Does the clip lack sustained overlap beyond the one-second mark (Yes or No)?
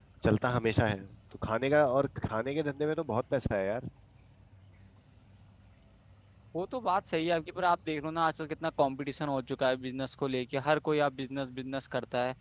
Yes